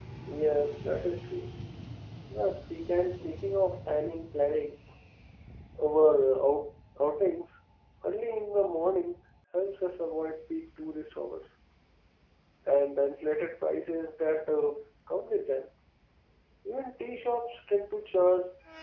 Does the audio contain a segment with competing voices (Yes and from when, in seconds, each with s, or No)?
No